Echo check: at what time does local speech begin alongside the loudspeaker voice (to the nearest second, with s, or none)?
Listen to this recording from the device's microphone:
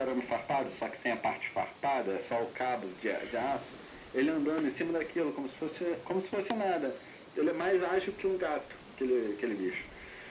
none